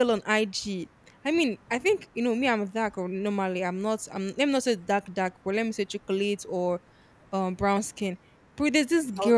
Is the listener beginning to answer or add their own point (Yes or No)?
No